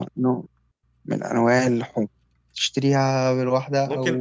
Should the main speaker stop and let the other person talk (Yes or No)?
Yes